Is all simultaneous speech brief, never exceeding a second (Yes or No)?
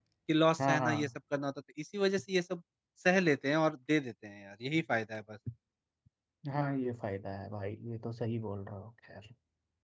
Yes